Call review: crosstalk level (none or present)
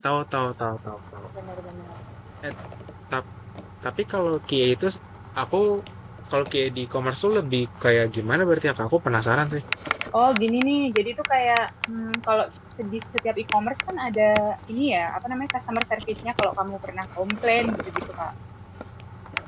none